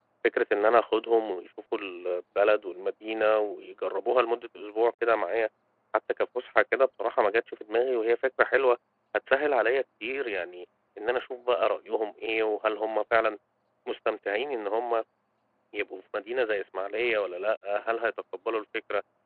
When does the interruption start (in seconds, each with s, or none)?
none